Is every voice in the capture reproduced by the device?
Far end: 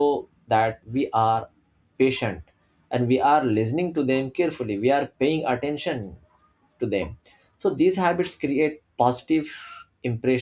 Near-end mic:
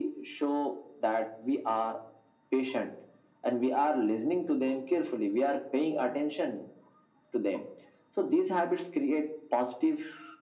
Yes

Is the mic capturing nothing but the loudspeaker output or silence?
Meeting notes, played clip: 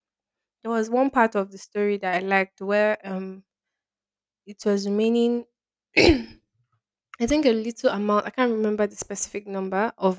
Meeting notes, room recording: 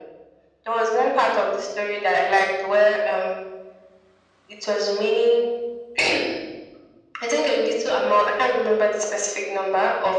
Yes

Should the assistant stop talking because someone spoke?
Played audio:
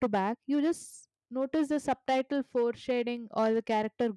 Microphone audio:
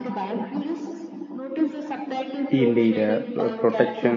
Yes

